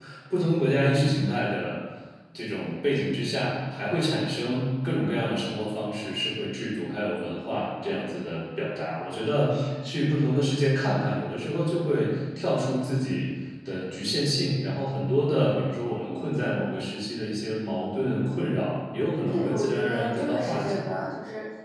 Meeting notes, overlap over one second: present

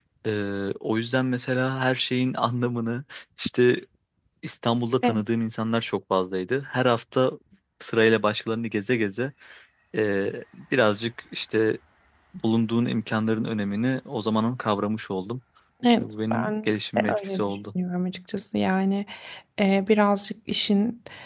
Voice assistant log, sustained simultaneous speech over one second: present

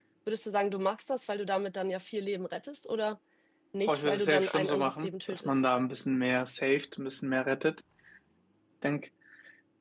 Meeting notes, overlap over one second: present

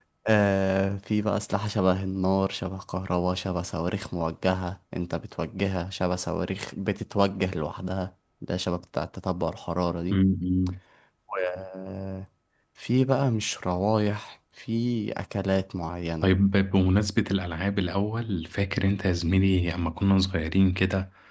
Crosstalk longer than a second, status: none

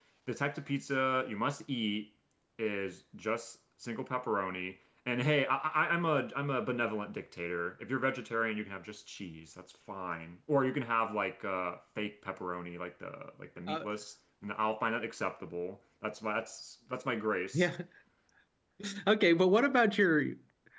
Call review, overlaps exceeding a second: none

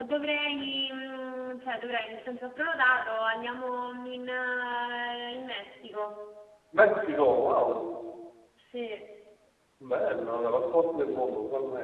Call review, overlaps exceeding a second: none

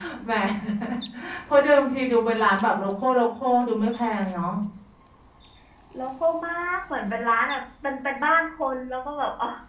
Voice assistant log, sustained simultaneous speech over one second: none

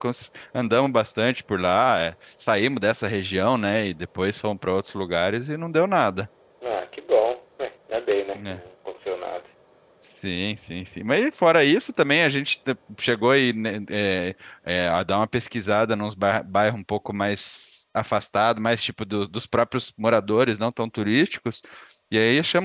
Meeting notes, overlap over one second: none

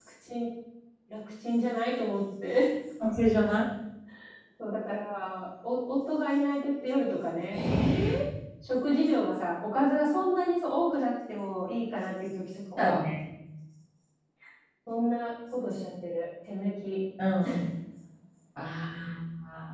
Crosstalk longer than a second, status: none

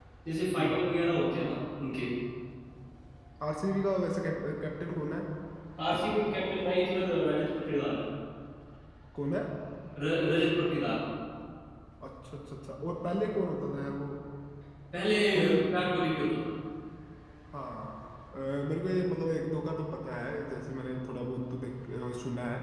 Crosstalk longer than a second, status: none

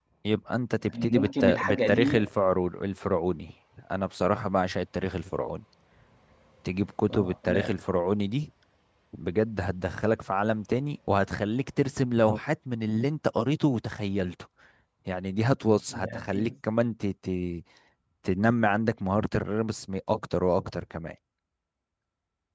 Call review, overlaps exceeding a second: present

